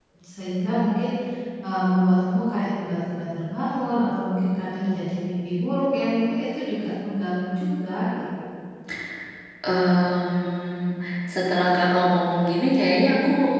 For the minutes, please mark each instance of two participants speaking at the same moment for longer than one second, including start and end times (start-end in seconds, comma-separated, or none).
none